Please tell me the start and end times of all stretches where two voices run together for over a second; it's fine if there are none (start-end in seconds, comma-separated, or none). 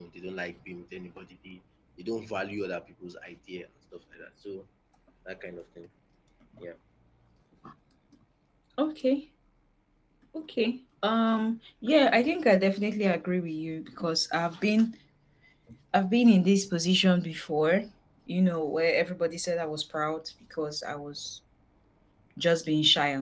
none